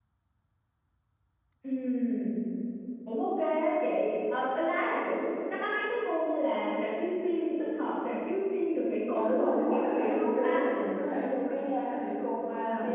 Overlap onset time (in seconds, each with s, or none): 9.2 s